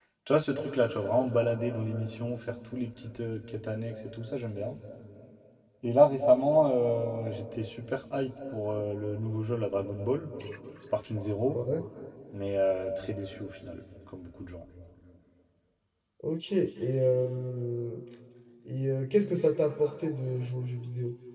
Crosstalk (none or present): none